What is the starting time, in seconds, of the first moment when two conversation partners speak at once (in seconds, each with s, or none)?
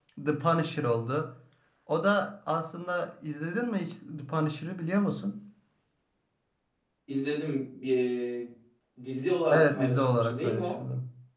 9.5 s